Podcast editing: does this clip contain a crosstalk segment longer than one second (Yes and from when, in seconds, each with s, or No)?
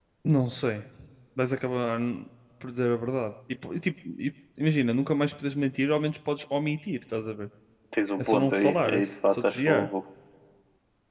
Yes, from 8.2 s